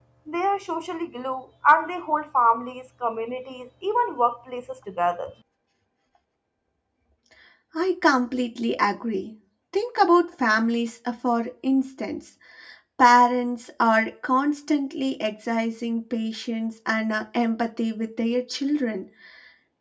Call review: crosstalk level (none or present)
none